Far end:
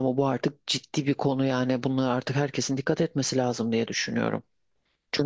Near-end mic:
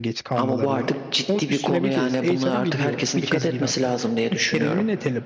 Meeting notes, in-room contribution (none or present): present